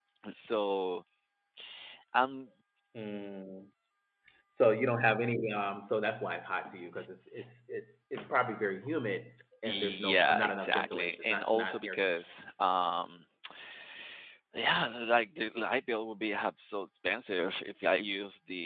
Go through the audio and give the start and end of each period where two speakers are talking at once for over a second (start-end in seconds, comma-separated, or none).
9.7-12.2